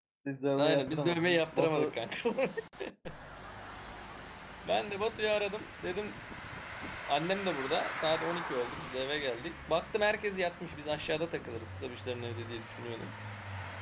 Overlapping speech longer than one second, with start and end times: 0.6-1.9

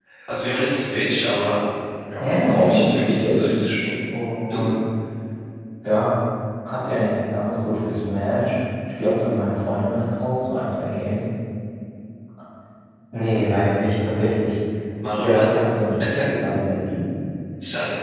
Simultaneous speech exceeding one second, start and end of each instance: 2.2-3.5

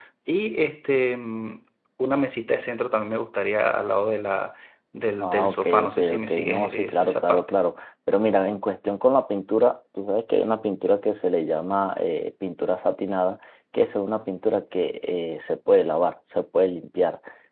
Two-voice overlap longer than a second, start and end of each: 5.2-7.5

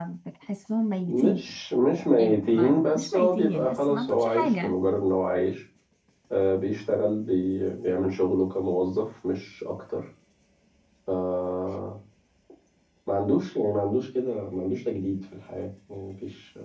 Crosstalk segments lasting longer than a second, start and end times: 2.2-4.8

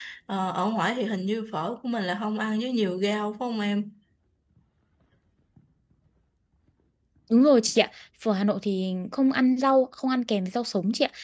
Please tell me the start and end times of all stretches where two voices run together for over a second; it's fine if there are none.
none

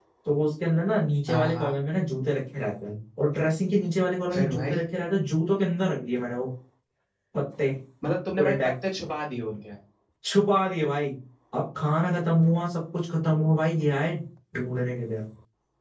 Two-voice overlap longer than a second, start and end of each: none

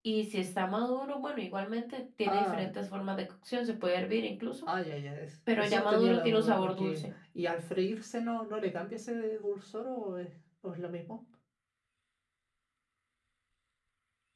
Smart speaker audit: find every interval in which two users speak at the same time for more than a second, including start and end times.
5.6-7.0

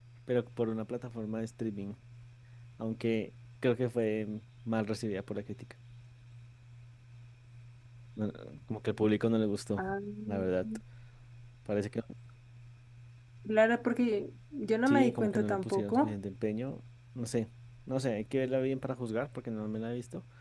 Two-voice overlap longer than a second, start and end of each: 14.9-16.1

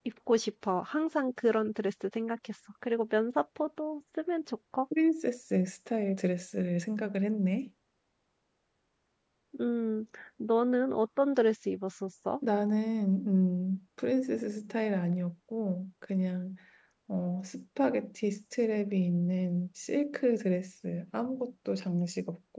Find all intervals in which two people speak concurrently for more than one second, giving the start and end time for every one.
none

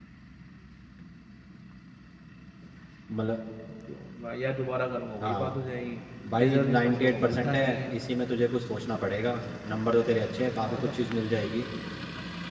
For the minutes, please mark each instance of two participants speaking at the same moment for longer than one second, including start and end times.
6.4-7.9

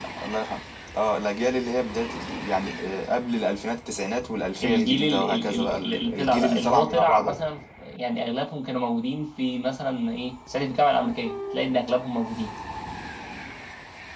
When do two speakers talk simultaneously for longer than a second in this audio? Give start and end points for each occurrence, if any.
4.6-7.3

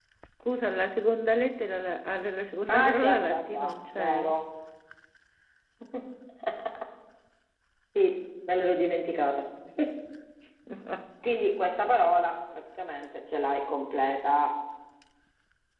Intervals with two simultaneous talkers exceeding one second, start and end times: 2.7-4.4

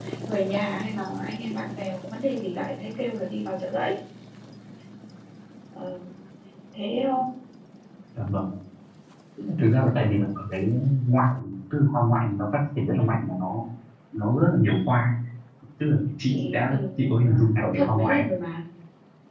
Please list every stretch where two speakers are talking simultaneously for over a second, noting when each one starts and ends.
16.3-18.2

